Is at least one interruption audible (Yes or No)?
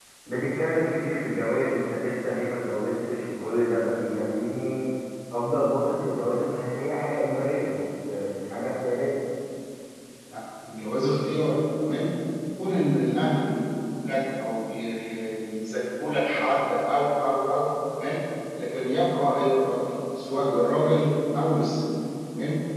No